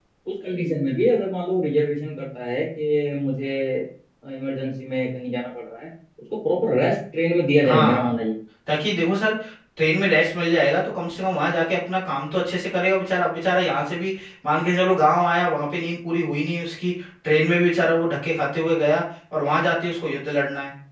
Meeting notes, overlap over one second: none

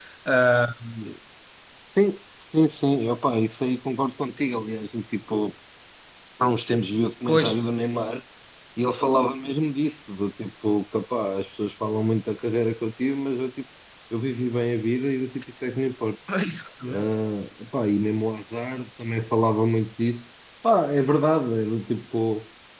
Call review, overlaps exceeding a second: none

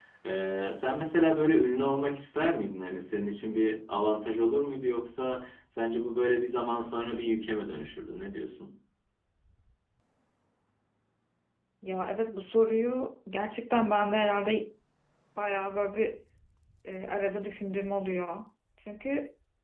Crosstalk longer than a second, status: none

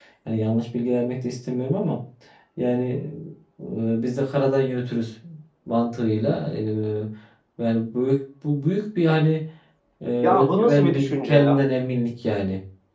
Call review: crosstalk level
present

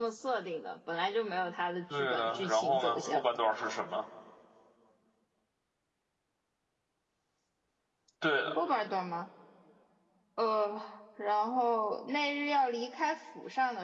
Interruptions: present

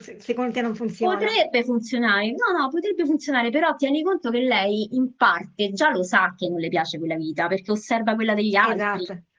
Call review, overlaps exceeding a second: none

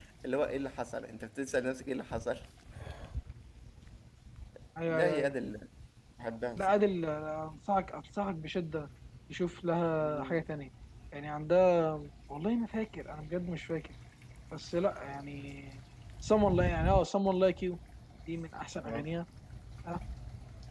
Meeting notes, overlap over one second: none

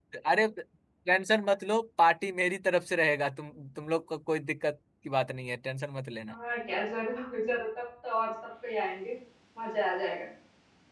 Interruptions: none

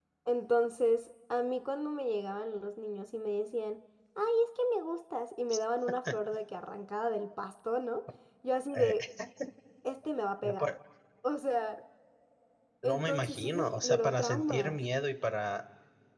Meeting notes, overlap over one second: present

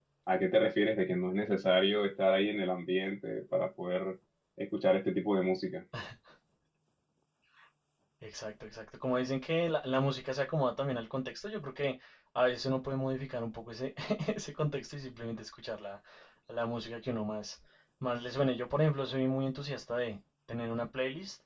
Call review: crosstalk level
none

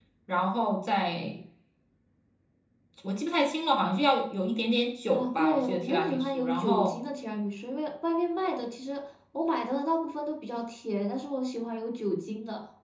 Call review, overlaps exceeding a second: present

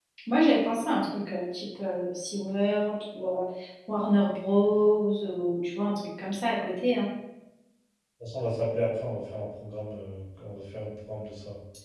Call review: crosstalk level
none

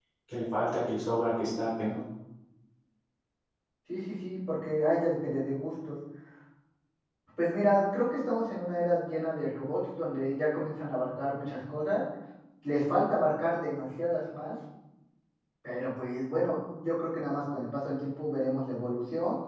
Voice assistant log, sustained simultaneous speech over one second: none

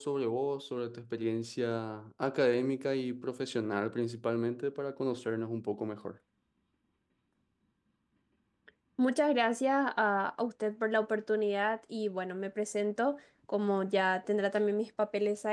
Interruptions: none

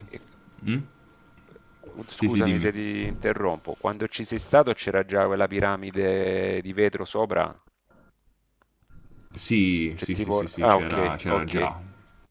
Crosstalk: present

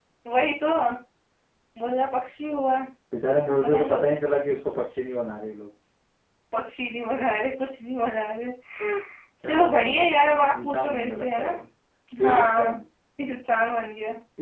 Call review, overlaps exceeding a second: present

